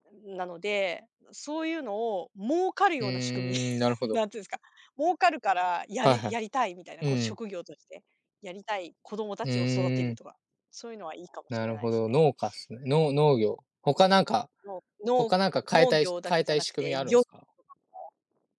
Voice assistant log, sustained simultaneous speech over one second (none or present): present